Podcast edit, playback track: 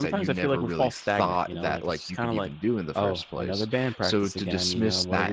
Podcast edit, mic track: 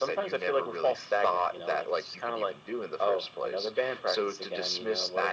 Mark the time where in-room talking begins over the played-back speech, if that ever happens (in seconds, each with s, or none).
none